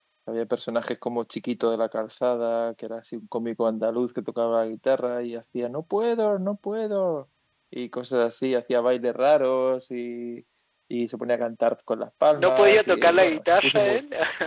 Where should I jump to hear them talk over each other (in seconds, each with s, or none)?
12.4 s